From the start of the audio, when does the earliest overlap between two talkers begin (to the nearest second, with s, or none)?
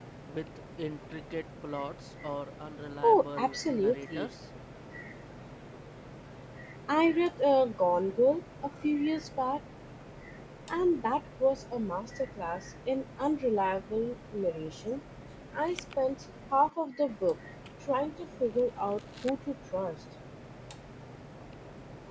3 s